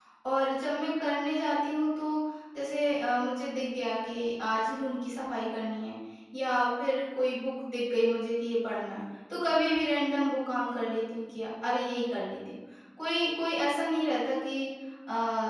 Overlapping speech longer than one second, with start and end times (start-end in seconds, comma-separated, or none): none